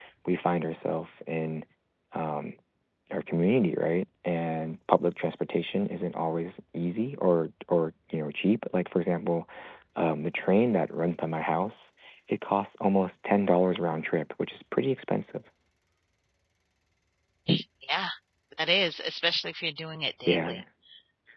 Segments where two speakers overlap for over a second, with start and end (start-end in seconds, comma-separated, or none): none